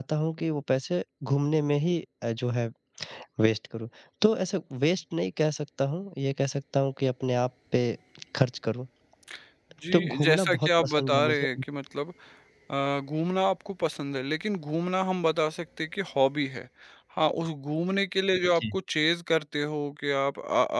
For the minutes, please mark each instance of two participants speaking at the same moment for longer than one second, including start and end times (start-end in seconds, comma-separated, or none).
9.9-11.5